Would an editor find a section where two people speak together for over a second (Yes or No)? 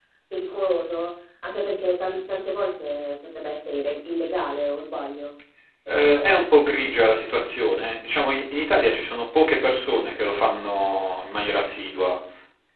No